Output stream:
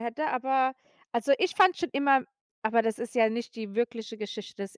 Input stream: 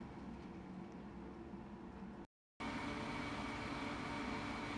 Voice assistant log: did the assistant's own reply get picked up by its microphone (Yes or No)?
No